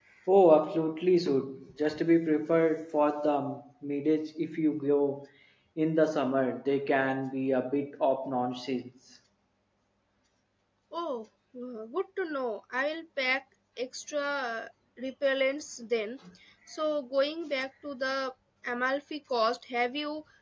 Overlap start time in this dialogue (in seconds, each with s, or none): none